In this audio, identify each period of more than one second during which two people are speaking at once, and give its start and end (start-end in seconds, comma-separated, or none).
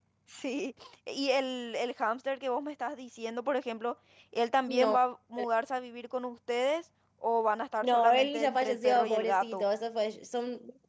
7.8-9.6